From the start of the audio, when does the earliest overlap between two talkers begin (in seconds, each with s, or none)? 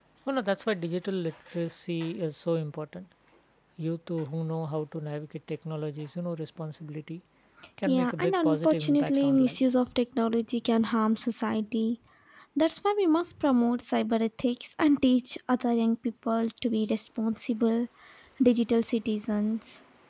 7.9 s